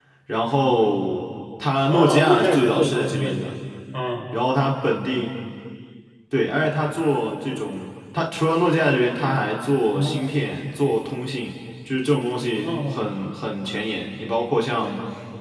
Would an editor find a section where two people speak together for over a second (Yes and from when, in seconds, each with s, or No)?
Yes, from 1.9 s